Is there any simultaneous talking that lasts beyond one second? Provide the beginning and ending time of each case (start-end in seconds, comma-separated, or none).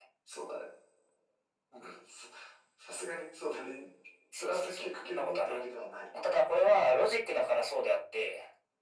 4.4-5.6